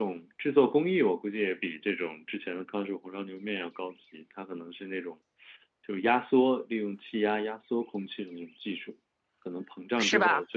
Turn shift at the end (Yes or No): No